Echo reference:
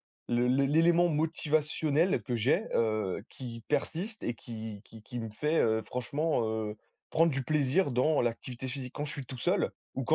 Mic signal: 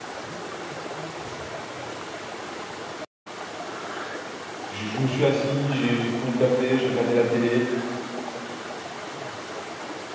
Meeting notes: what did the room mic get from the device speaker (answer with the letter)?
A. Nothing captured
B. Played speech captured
A